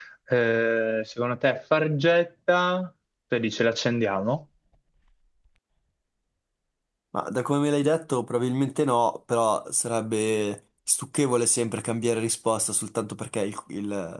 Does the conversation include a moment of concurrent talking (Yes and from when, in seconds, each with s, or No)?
No